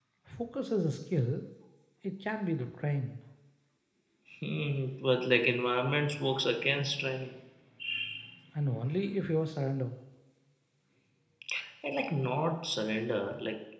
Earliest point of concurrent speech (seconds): none

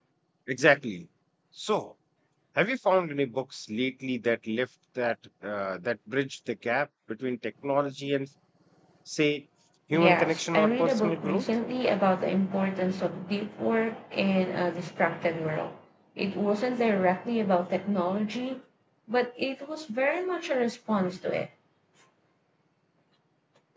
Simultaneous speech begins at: 10.0 s

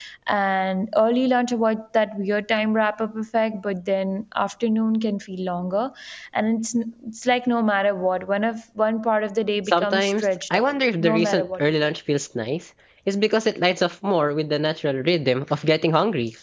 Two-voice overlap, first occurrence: 9.7 s

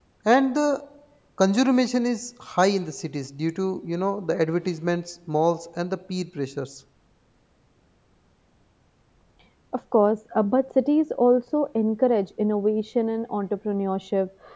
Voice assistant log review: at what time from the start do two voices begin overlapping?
none

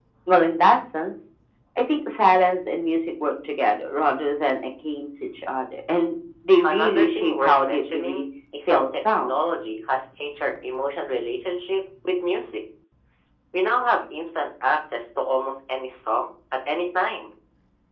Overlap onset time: 6.6 s

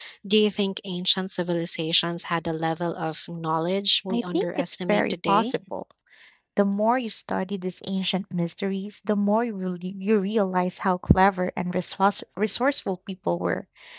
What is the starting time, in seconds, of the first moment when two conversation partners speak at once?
4.1 s

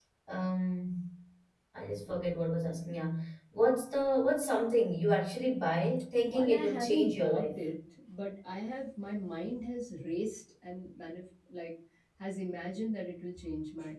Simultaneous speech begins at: 6.3 s

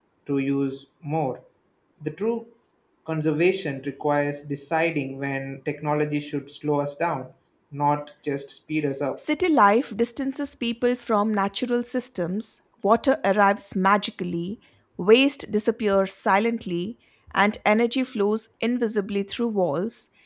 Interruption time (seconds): none

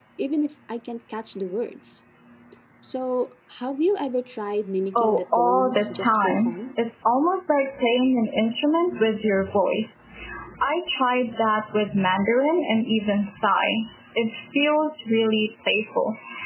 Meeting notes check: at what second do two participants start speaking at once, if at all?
5.0 s

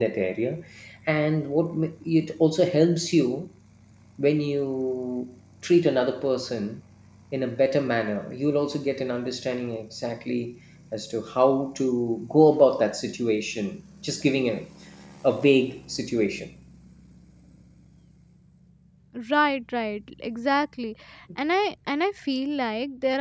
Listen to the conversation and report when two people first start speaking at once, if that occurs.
none

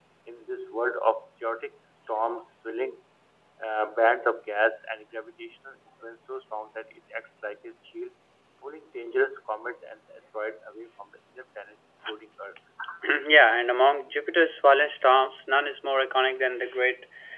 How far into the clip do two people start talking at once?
none

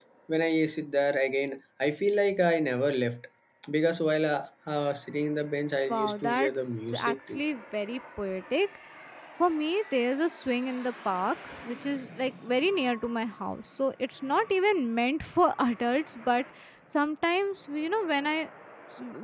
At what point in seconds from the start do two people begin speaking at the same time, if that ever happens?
5.9 s

